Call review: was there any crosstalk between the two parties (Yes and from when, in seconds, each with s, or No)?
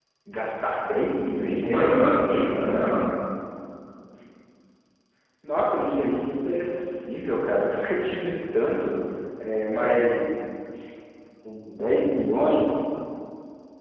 Yes, from 1.6 s